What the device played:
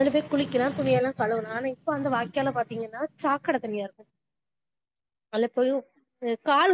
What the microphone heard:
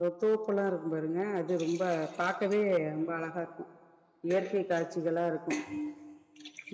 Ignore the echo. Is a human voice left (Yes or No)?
Yes